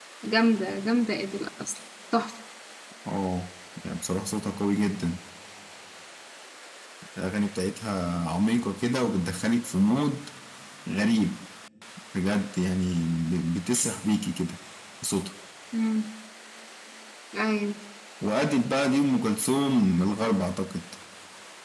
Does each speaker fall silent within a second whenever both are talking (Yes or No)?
Yes